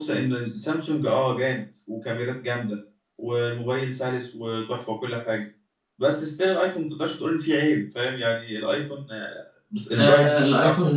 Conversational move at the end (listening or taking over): taking over